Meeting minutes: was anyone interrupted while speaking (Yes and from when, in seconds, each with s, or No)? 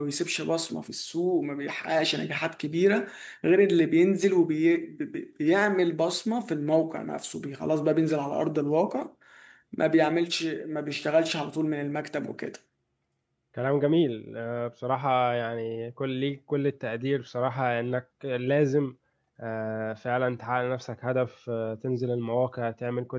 No